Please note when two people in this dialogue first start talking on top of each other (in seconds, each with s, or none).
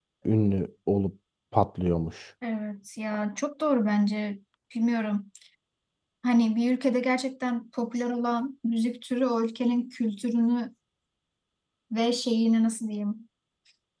none